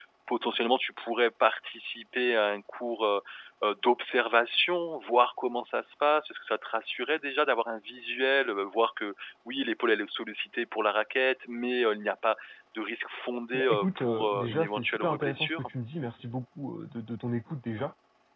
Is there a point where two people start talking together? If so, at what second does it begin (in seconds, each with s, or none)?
13.5 s